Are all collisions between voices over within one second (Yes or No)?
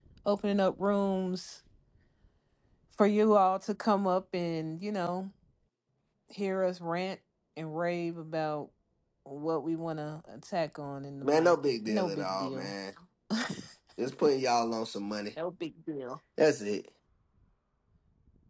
No